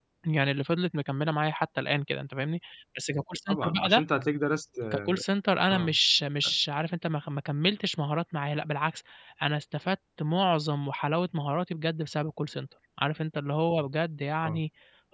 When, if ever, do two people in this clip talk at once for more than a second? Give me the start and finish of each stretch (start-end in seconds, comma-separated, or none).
none